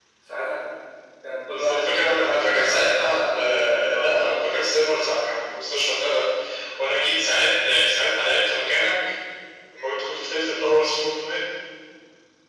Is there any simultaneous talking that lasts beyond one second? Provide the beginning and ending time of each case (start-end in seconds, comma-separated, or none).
1.5-4.6